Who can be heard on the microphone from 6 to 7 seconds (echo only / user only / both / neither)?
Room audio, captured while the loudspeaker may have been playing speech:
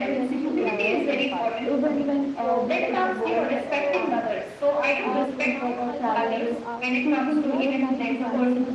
both